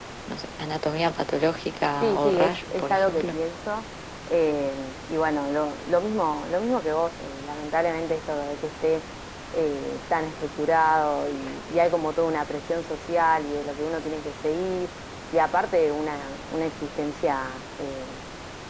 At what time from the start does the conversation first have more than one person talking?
2.0 s

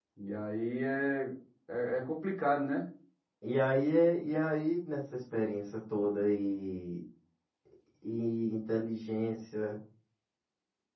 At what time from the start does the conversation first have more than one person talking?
none

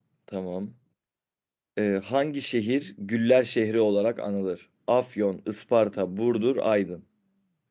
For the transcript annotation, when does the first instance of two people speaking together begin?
none

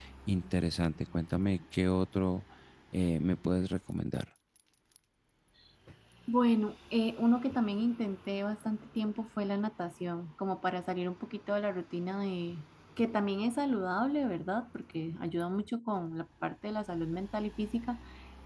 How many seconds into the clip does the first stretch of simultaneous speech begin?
none

